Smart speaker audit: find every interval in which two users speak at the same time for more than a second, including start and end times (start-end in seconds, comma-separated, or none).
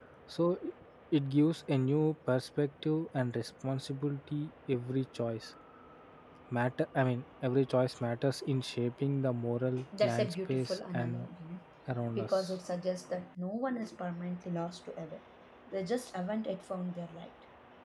10.0-11.3